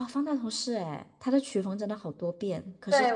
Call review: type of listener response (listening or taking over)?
taking over